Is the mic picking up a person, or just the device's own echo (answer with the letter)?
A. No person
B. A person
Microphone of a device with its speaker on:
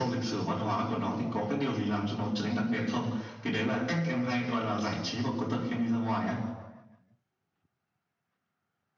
A